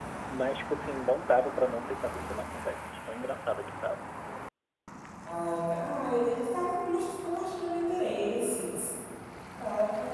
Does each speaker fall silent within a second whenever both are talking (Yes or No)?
Yes